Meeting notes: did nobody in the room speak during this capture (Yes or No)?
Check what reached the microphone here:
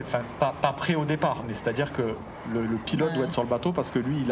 No